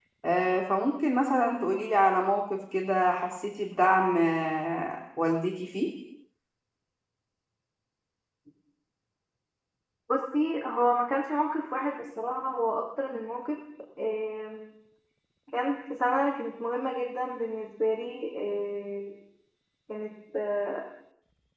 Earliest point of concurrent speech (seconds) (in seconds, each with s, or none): none